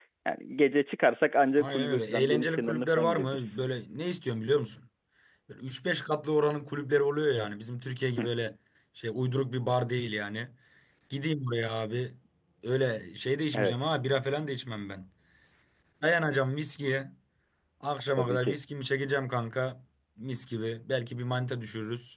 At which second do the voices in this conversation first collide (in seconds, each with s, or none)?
1.6 s